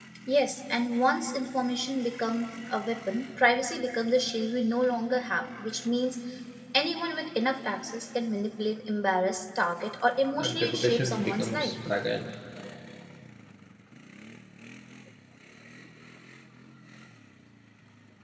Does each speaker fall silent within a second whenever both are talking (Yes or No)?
No